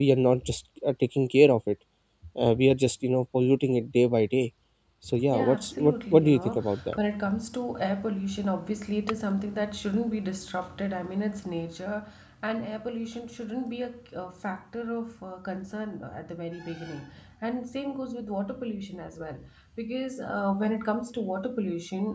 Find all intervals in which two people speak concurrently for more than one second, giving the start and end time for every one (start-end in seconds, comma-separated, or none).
5.3-7.0